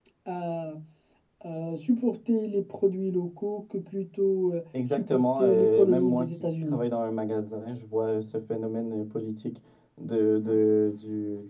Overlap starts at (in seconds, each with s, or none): 4.7 s